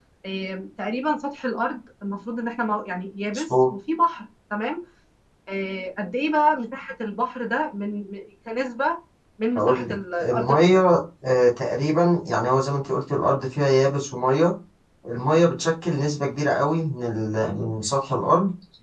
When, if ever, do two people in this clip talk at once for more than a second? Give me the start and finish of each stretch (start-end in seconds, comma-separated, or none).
9.6-10.8